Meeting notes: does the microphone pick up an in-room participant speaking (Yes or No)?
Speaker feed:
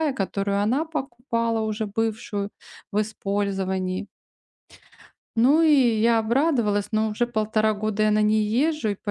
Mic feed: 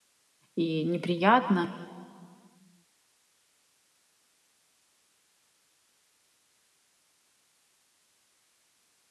Yes